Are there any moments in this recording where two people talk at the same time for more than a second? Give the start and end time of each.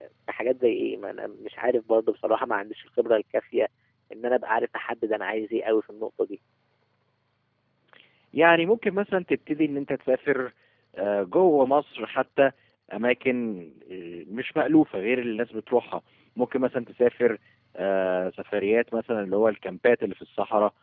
none

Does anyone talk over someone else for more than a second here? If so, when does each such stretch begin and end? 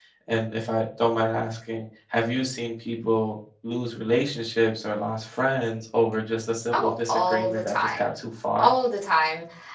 6.7-8.1

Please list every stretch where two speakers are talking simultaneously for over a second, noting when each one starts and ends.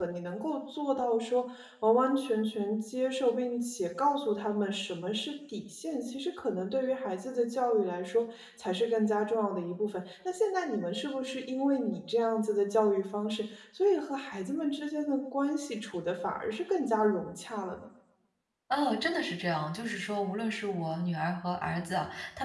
none

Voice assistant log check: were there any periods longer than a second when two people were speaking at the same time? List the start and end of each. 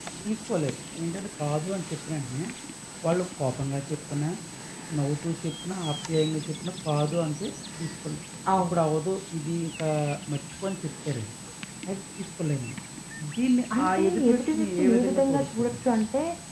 13.8-15.7

